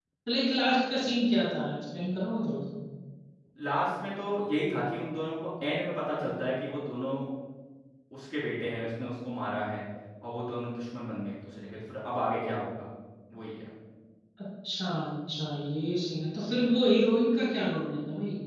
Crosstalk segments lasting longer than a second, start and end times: none

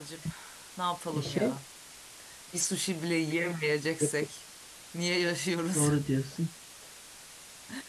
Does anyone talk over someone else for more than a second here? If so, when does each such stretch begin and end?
none

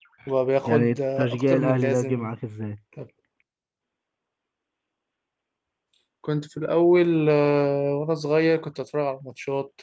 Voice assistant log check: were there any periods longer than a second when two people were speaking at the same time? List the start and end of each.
0.7-2.3

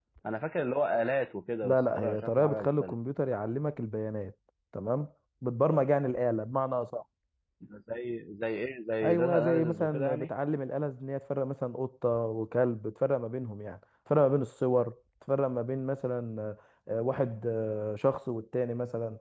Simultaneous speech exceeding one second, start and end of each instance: 1.6-2.9, 9.0-10.3

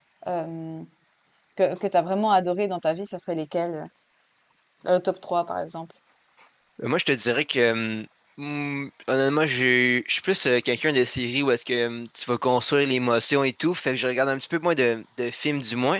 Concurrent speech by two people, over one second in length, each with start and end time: none

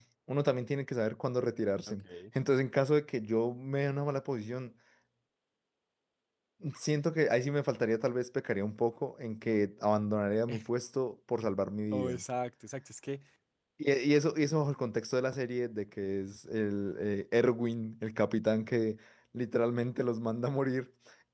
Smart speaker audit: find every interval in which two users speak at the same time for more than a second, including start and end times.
none

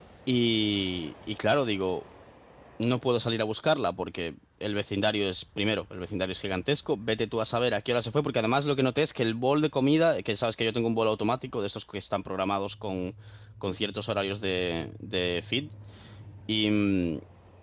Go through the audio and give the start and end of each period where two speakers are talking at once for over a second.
none

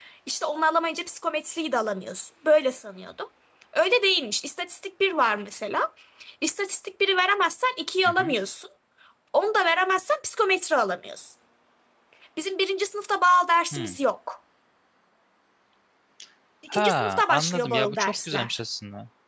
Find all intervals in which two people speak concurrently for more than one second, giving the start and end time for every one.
16.7-18.6

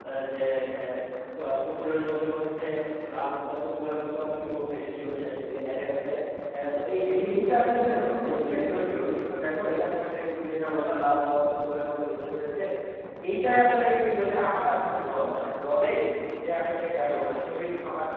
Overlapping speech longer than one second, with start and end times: 7.1-8.8

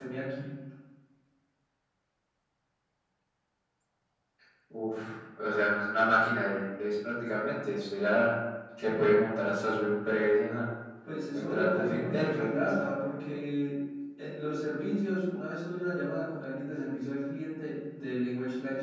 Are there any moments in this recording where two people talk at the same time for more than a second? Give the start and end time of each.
11.3-12.8

